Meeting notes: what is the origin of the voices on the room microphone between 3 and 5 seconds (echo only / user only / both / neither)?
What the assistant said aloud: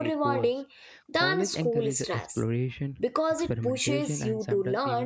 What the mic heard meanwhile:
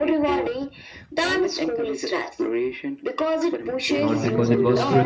both